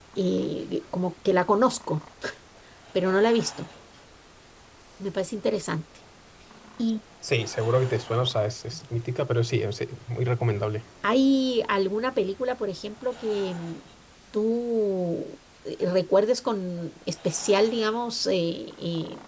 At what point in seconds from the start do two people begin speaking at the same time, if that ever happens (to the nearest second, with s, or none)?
none